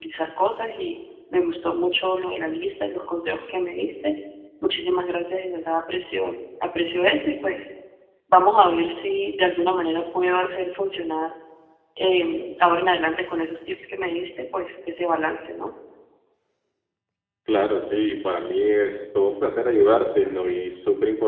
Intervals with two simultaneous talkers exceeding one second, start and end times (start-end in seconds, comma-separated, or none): none